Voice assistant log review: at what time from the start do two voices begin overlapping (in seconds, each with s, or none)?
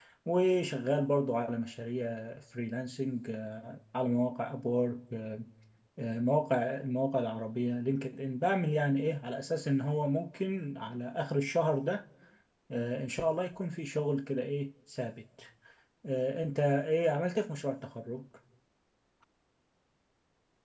none